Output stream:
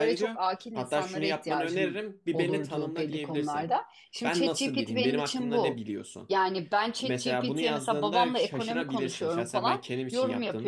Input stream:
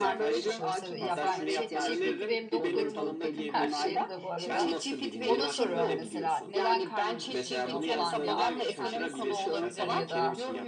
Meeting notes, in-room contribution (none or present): present